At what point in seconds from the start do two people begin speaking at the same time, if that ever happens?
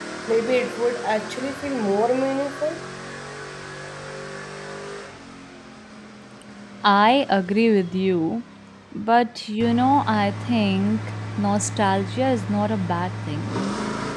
none

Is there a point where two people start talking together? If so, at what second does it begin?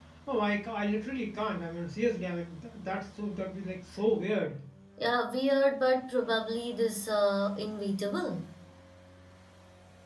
none

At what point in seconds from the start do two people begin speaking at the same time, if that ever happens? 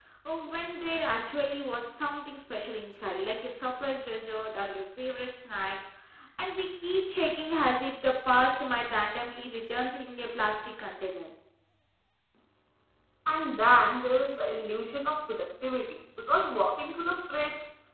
none

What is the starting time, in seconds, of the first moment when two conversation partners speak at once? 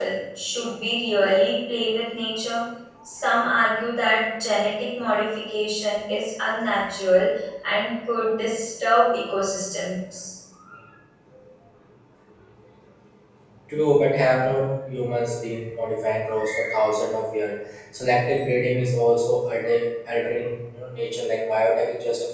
none

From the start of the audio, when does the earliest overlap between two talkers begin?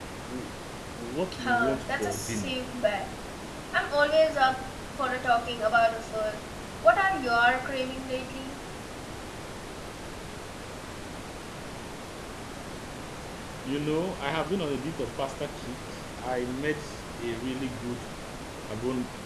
1.4 s

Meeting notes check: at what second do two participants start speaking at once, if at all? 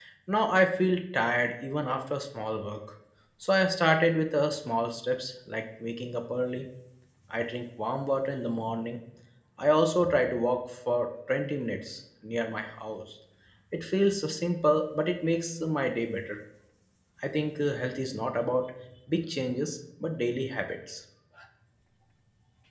none

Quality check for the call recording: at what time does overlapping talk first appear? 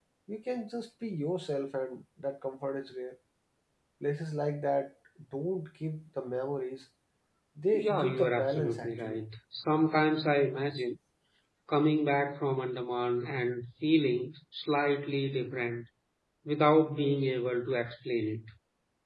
7.7 s

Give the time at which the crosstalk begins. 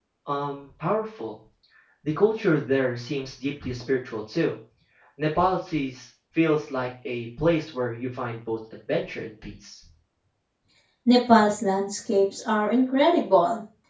none

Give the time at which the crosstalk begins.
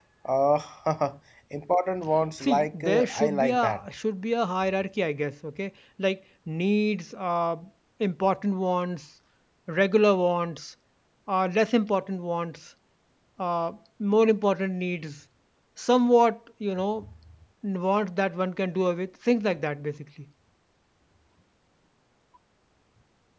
2.4 s

